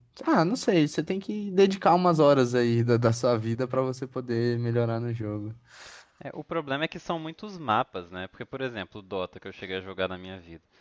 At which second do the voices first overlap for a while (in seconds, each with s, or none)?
none